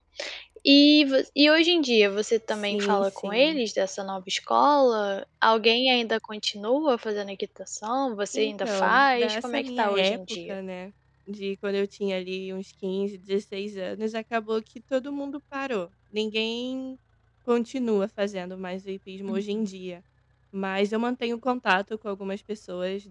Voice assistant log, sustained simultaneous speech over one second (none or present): present